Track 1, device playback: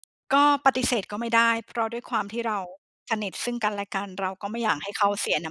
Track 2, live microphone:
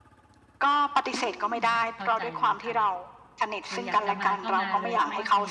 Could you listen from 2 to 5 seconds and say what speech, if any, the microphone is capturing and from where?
both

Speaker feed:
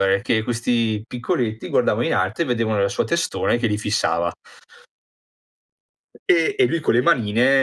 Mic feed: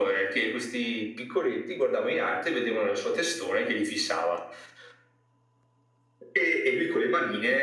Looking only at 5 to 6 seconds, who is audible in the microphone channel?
neither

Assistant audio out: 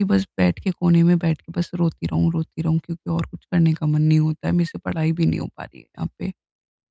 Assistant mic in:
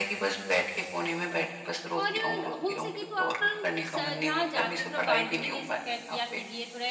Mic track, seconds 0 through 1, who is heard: echo only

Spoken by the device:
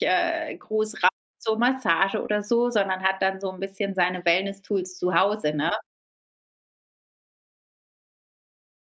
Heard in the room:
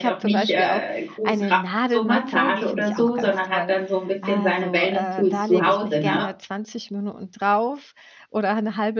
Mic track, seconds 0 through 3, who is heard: both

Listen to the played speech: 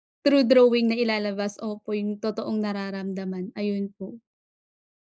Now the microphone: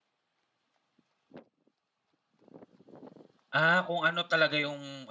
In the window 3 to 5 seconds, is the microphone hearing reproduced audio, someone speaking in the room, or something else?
user only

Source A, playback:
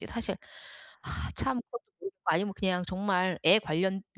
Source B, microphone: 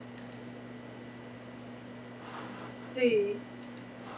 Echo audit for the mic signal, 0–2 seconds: neither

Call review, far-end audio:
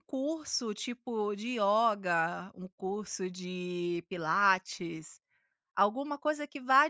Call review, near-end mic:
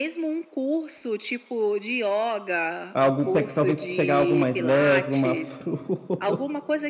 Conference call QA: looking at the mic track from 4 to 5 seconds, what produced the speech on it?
both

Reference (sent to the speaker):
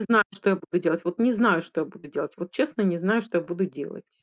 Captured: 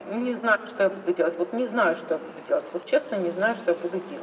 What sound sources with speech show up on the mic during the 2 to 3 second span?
echo only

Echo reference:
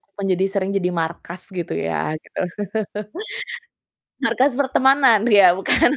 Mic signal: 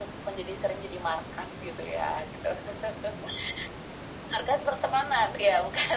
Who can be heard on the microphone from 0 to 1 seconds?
echo only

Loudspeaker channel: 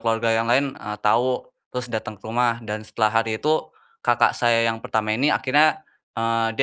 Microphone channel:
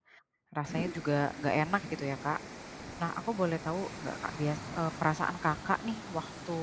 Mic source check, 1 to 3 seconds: user only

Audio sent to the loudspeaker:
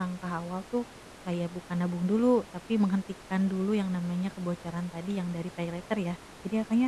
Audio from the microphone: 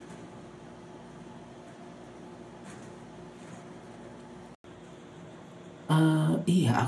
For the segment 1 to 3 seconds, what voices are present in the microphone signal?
neither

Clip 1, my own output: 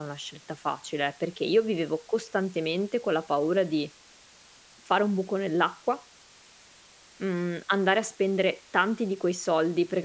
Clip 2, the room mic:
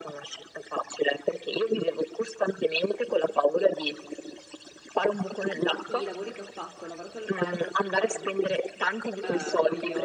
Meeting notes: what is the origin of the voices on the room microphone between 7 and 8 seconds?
both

